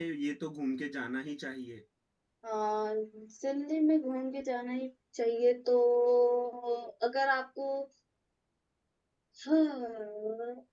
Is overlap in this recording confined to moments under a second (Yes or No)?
Yes